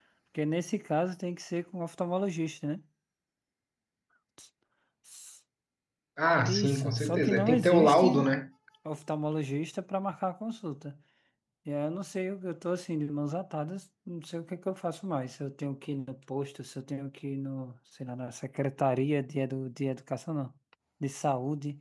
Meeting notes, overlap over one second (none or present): present